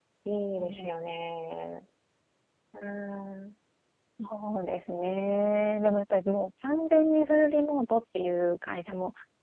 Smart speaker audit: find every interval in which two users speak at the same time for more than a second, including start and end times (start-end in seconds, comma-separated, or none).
none